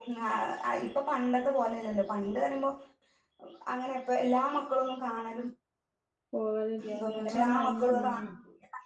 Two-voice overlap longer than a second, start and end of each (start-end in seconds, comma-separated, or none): 7.0-8.3